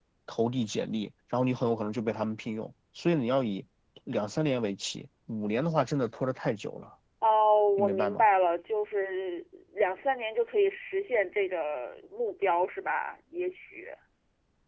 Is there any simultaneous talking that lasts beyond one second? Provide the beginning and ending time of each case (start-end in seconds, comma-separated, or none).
none